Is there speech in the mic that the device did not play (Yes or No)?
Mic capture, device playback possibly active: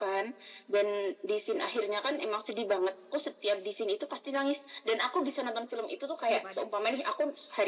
Yes